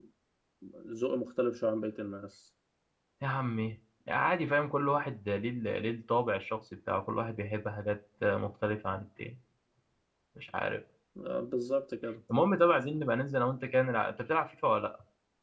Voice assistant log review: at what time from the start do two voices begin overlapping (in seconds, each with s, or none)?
none